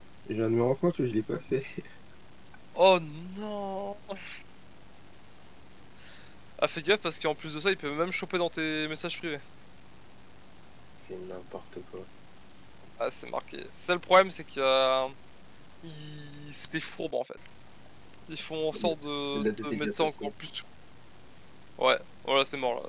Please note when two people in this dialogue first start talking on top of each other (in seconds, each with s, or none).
18.8 s